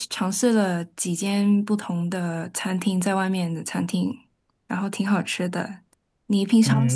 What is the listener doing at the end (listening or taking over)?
taking over